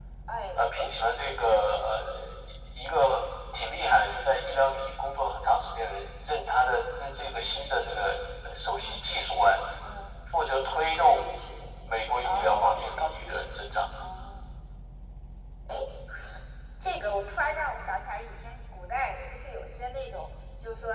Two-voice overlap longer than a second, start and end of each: 12.2-13.6

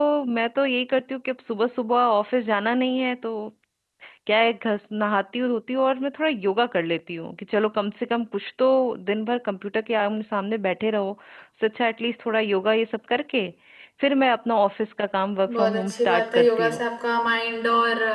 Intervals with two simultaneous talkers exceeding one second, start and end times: 15.5-16.8

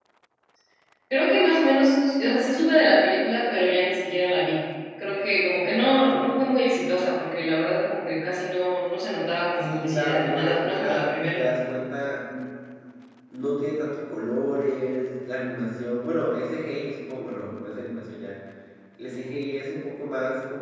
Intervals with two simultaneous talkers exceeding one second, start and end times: 9.6-11.4

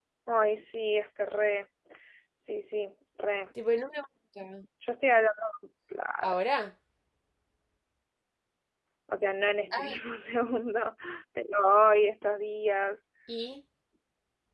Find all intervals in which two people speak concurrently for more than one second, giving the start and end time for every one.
none

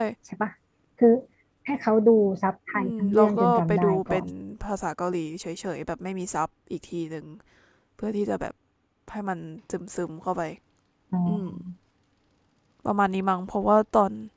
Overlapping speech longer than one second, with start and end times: 2.7-4.3

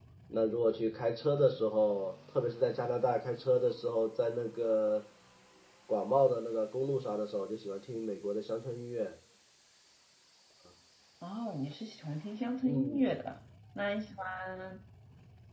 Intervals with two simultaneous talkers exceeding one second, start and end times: none

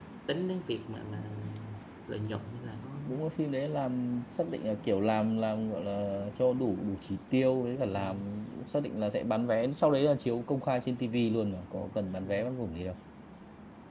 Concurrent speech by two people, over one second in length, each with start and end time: none

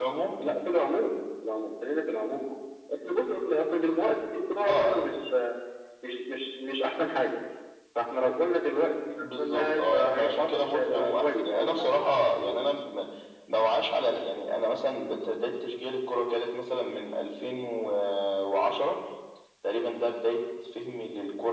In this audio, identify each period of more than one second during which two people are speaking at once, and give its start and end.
9.2-11.9

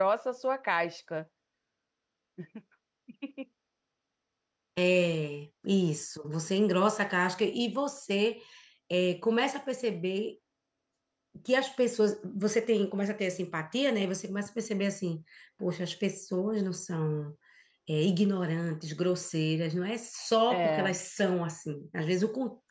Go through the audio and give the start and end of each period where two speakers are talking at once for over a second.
none

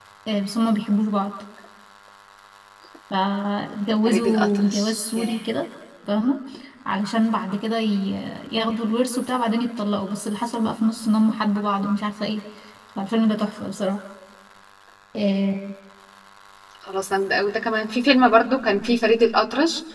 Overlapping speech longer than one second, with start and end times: 4.0-5.4

